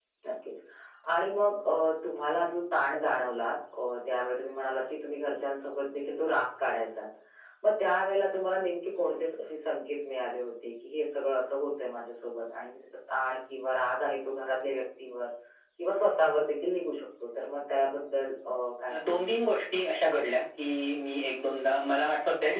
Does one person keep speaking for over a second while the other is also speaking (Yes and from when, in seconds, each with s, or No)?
No